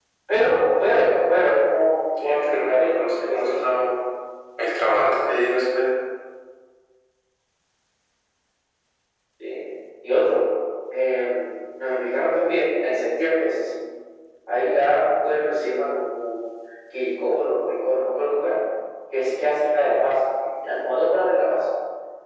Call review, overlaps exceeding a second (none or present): present